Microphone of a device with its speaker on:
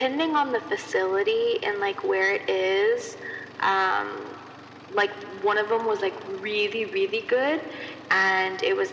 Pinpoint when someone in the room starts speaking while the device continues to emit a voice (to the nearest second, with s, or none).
none